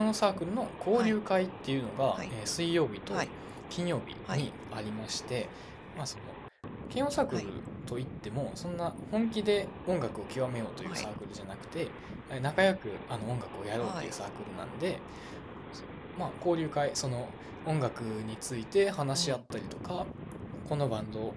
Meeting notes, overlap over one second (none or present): none